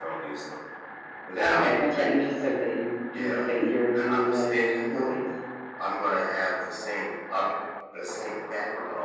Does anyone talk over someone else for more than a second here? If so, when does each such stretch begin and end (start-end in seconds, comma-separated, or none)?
3.9-5.2